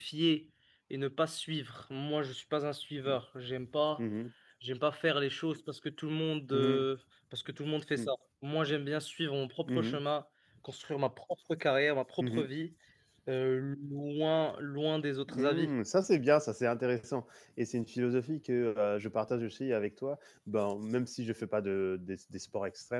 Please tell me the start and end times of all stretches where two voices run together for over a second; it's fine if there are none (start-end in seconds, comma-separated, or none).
none